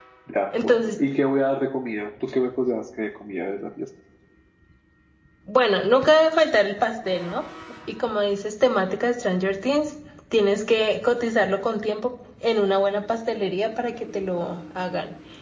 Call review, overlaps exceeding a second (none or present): none